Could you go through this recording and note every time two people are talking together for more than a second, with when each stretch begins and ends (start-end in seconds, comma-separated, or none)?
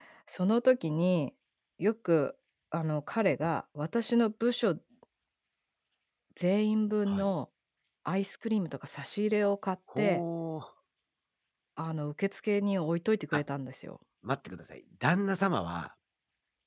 none